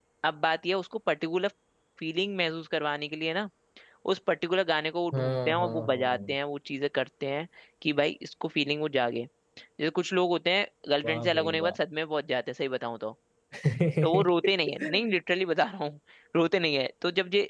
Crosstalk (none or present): present